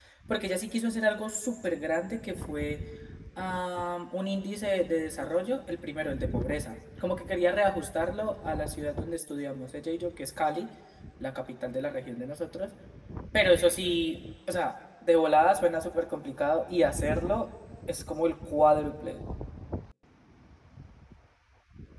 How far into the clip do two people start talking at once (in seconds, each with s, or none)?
none